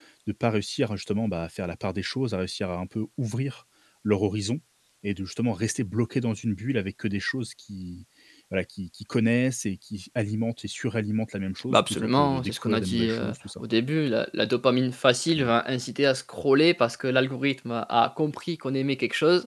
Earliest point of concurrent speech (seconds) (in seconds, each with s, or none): 11.7 s